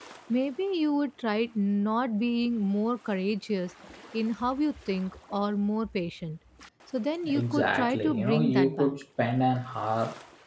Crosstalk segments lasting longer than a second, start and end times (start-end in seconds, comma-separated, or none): 7.3-8.9